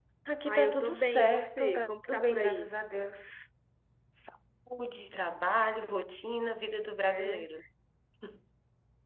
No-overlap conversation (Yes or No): No